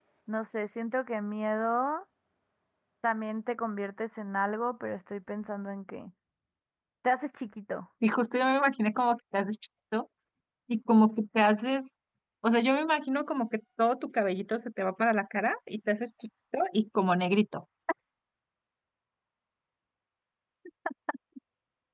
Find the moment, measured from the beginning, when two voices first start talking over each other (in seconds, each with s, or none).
none